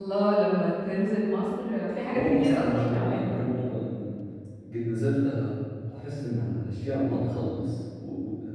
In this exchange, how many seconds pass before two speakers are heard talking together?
2.1 s

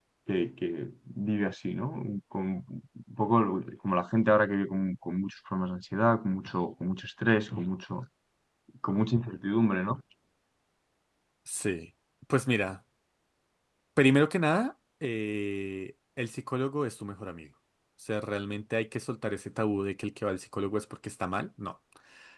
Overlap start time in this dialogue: none

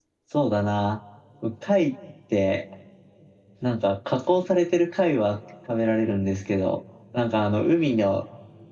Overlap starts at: none

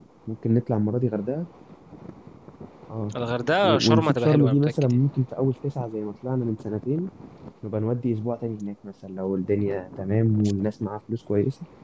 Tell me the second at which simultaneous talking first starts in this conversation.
3.6 s

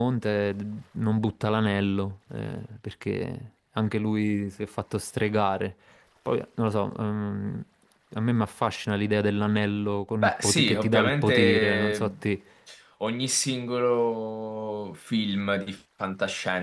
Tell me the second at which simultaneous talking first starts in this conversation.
10.2 s

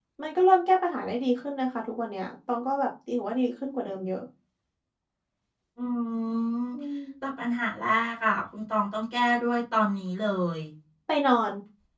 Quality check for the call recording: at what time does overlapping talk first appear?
none

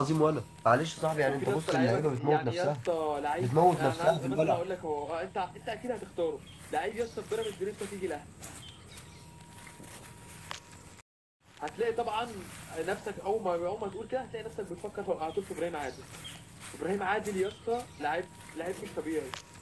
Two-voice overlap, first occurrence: 1.3 s

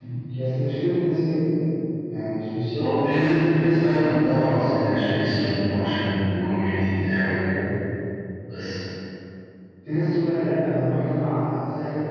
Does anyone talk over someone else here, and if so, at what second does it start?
2.8 s

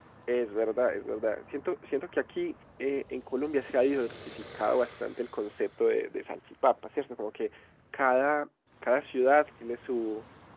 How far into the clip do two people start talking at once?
none

